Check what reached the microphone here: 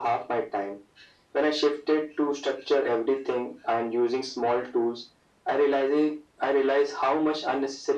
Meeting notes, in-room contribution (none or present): none